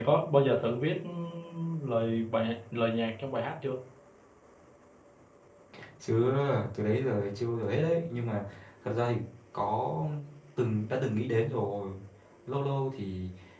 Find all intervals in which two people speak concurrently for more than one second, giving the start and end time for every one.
none

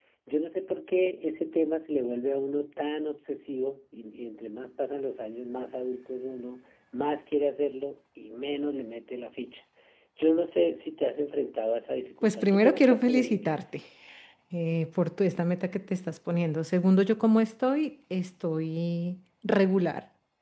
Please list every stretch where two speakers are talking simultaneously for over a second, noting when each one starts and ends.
12.2-13.7

